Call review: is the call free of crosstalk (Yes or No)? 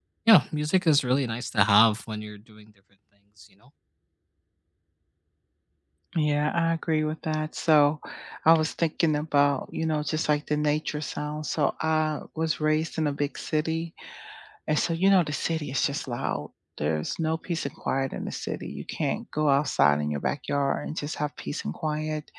Yes